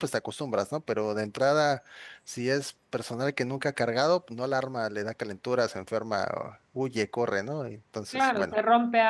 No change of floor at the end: No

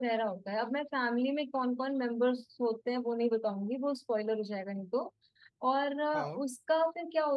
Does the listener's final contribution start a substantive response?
No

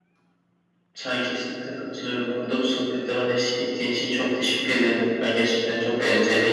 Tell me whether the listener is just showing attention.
Yes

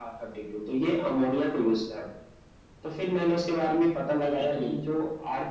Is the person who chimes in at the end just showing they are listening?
Yes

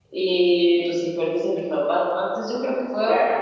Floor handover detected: No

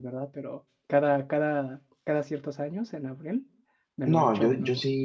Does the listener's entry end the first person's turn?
Yes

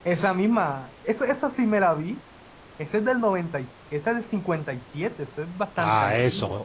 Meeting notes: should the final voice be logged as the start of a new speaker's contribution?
Yes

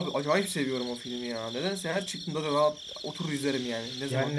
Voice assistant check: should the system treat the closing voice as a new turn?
Yes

